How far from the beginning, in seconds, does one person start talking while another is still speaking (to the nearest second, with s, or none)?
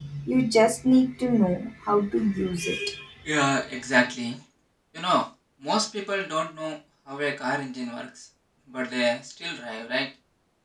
none